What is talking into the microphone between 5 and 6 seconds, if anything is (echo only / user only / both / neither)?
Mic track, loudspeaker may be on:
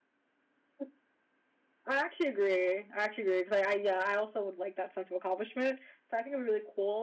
user only